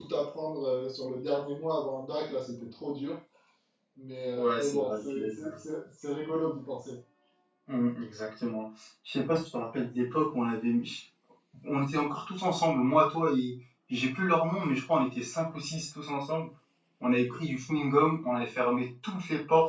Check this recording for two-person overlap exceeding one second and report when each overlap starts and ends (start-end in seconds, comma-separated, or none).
4.4-5.6